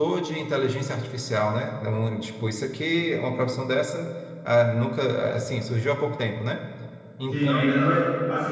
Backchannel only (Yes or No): No